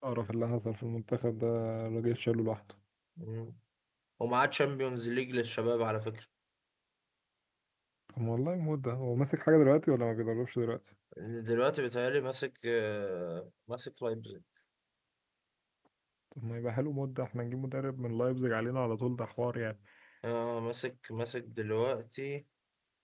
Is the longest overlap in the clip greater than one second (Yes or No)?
No